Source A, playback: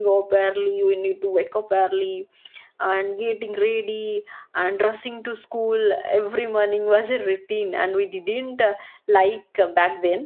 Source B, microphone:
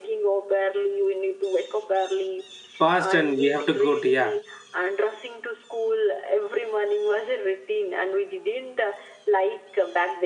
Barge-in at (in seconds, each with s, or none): 2.8 s